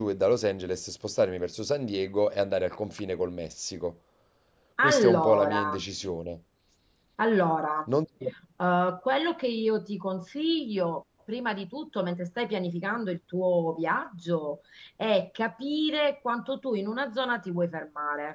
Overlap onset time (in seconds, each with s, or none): 4.8 s